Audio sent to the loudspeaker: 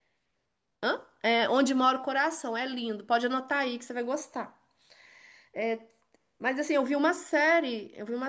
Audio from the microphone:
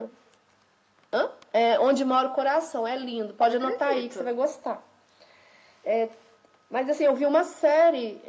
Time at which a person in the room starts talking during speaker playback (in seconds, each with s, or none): 3.4 s